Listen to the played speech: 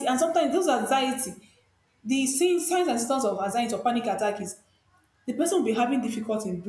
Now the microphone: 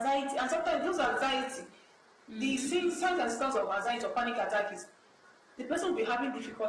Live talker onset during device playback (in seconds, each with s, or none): 2.3 s